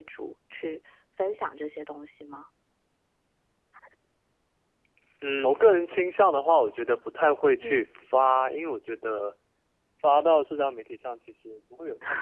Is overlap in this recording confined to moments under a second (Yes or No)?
Yes